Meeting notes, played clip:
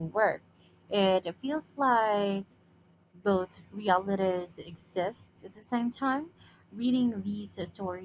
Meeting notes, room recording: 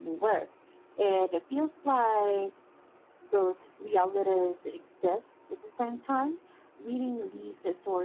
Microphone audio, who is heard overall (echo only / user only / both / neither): echo only